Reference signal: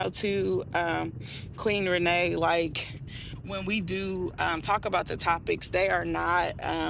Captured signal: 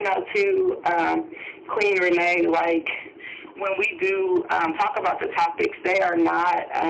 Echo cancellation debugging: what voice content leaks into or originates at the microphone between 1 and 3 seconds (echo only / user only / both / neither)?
echo only